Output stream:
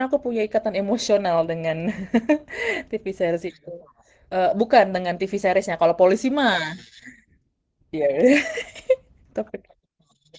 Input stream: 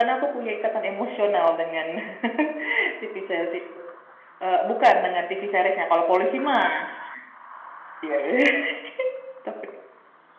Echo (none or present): present